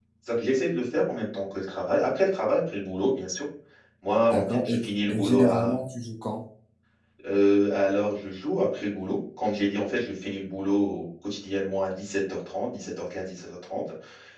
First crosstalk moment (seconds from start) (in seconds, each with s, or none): 4.3 s